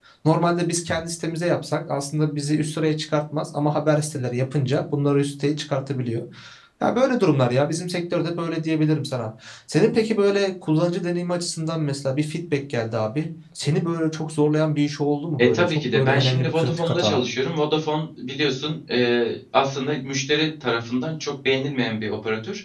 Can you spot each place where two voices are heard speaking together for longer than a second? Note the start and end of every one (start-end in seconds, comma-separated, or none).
15.4-17.2